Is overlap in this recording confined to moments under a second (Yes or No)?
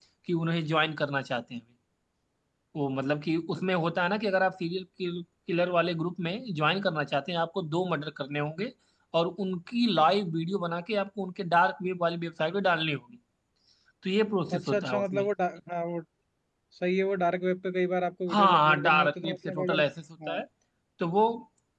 No